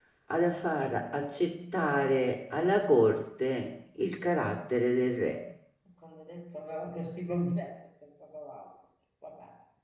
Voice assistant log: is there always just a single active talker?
Yes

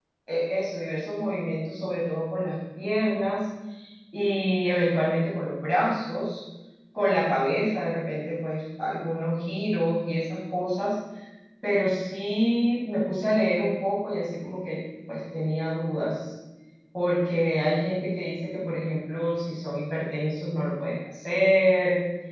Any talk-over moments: No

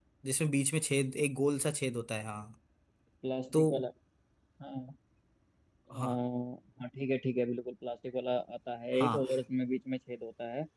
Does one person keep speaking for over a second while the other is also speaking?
No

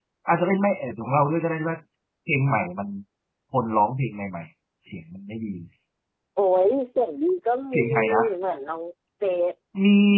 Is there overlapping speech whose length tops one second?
No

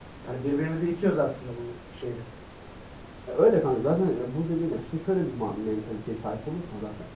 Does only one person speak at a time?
Yes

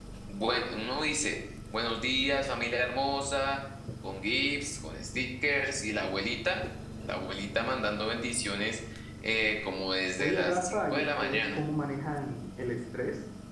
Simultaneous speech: Yes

